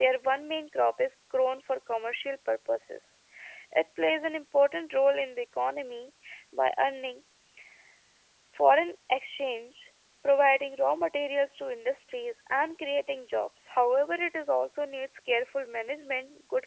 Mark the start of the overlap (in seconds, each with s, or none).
none